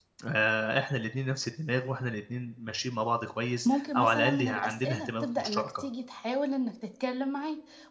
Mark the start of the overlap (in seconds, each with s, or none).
3.6 s